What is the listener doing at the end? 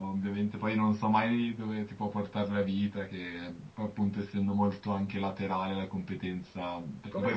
taking over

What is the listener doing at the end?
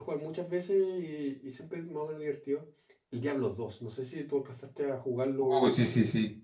taking over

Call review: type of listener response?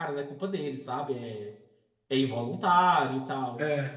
listening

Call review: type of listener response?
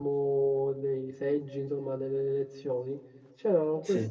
listening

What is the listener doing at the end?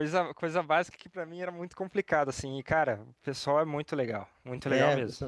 taking over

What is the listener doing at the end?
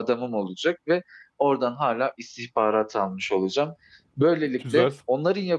listening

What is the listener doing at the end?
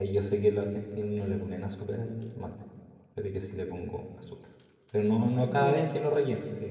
listening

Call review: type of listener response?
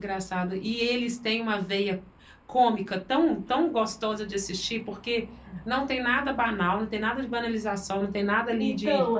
taking over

